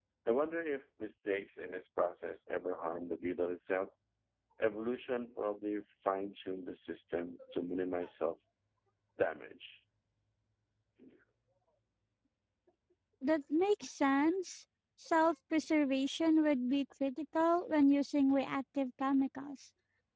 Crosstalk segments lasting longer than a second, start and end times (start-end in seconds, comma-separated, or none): none